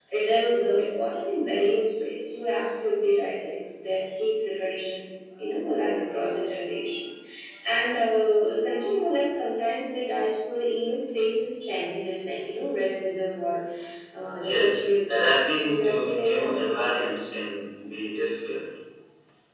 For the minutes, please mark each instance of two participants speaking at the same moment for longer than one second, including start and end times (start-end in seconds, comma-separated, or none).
14.3-17.1